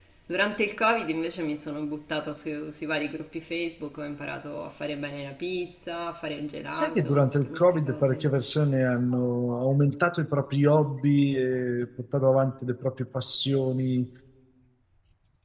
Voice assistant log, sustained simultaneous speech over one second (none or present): present